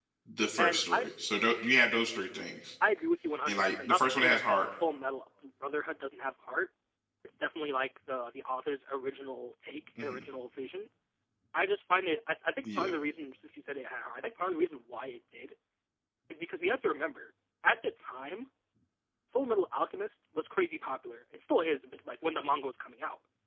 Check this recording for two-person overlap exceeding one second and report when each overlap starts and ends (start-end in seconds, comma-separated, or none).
3.5-4.7